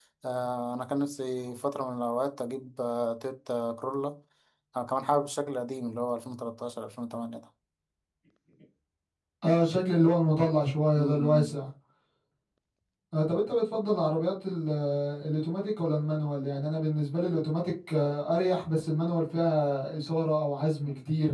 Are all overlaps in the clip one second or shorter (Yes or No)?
Yes